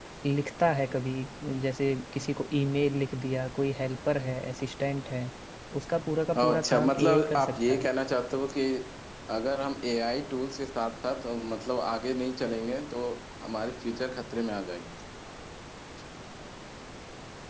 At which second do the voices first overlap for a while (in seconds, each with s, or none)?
6.4 s